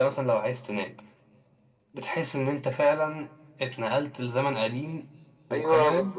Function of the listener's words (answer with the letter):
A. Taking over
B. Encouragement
A